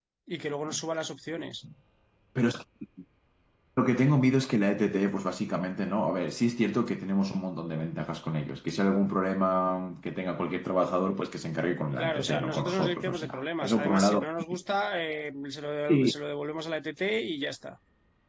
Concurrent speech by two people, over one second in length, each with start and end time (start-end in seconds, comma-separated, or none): 12.0-14.2